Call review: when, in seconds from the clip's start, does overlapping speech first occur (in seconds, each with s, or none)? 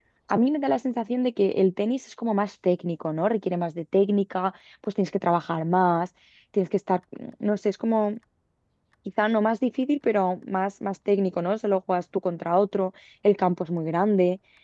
none